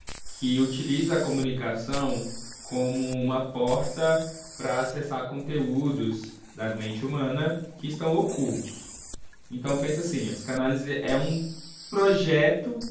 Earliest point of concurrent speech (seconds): none

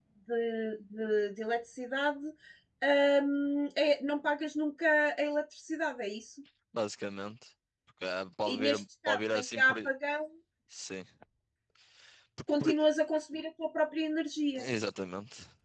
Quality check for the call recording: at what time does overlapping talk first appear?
8.5 s

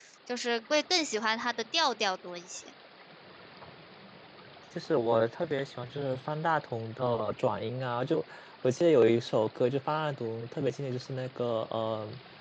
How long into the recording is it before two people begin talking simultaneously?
none

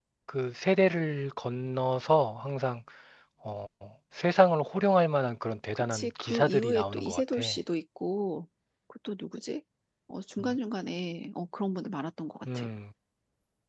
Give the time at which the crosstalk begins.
5.8 s

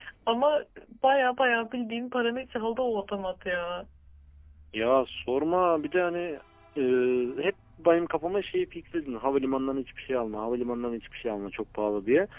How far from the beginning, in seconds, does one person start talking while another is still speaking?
none

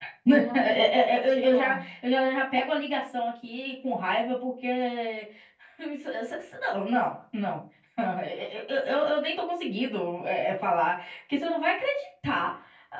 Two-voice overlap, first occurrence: 0.5 s

